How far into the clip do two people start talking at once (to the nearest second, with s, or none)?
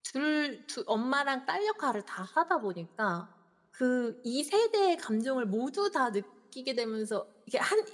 none